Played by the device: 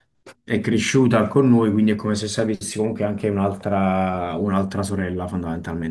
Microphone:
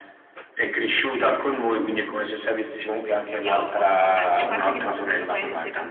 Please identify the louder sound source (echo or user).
echo